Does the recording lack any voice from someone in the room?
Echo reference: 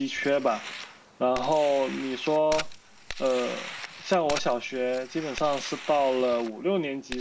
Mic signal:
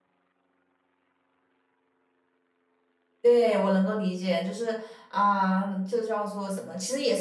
No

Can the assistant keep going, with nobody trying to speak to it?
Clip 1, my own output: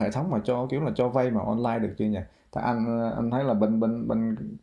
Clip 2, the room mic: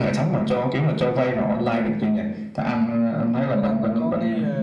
No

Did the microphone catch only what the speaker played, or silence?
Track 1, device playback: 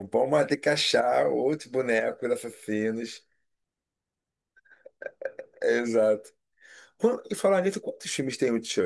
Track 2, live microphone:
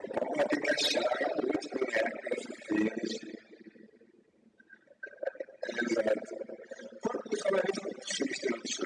Yes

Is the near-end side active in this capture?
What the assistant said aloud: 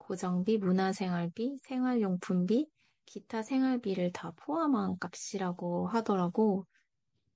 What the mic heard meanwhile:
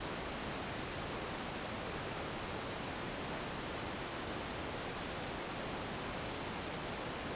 No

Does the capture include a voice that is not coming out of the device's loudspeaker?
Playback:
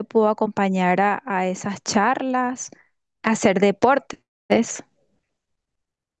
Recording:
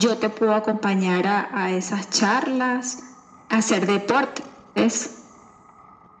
No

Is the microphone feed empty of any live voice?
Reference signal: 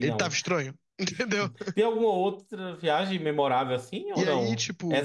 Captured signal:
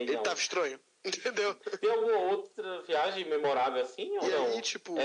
Yes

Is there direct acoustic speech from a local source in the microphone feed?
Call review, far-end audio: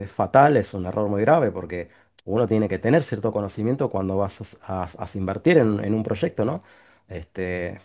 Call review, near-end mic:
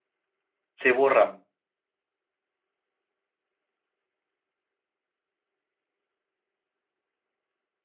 Yes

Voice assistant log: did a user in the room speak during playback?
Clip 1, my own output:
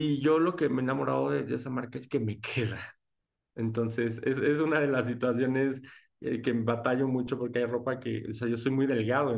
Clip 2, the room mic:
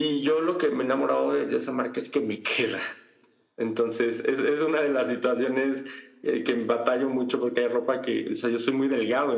No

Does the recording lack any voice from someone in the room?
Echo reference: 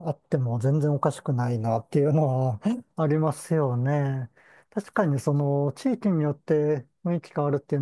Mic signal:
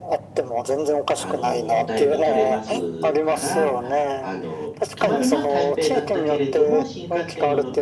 No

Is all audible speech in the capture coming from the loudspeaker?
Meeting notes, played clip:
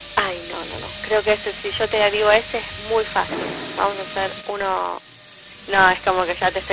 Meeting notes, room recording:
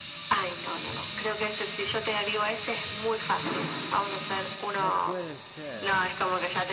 No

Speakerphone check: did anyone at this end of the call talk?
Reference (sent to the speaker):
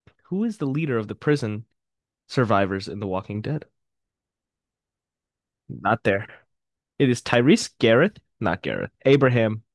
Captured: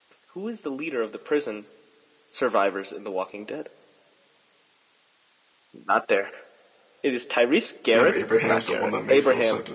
Yes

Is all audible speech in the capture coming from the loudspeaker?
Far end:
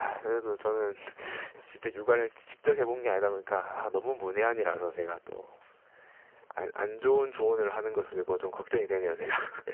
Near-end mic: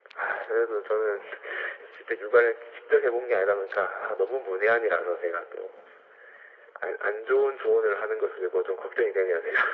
Yes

